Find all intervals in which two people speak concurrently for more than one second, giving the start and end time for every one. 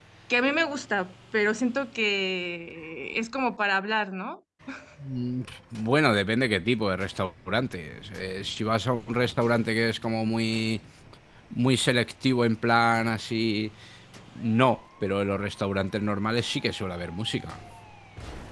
none

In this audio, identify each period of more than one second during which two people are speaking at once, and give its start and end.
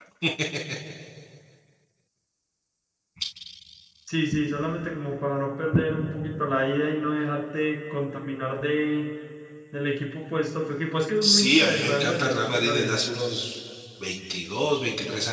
11.2-13.0

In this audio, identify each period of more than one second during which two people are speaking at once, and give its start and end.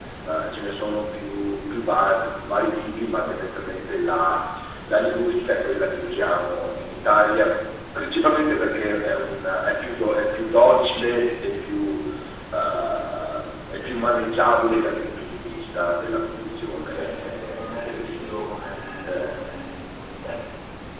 16.9-18.4

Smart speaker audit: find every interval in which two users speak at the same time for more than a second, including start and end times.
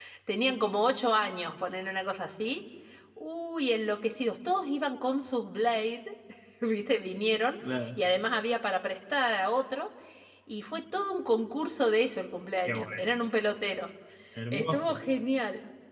none

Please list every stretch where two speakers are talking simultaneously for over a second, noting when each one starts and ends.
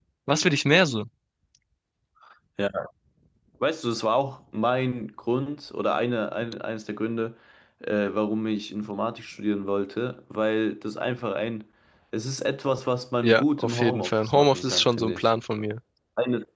13.2-15.3

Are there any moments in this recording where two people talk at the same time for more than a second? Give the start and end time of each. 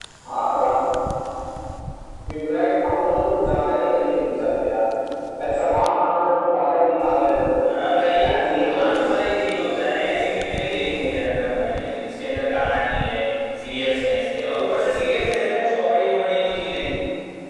7.9-9.2

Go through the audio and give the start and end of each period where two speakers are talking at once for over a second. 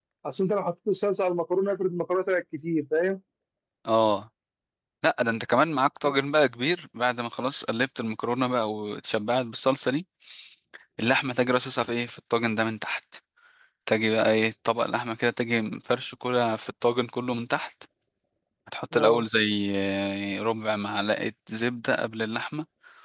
none

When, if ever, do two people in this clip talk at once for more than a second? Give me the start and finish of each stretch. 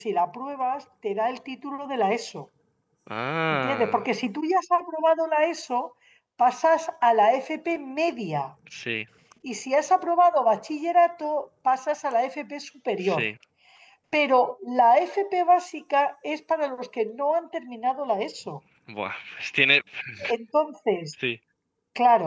none

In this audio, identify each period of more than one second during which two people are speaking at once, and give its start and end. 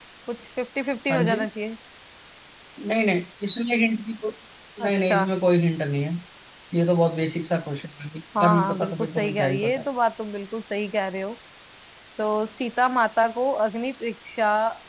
8.4-9.8

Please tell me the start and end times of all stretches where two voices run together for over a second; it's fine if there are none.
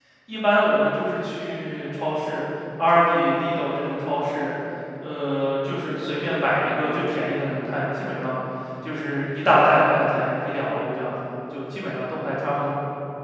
none

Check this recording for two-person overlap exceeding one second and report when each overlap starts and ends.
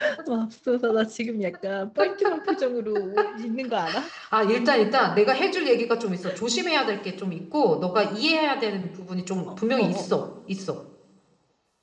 none

